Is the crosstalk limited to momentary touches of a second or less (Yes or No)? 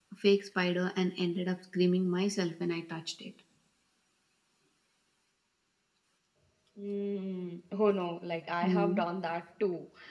Yes